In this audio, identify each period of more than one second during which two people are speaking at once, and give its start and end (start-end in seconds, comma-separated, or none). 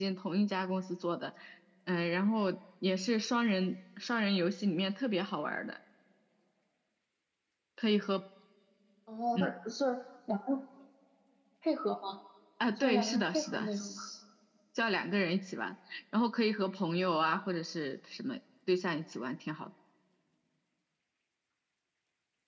12.8-14.0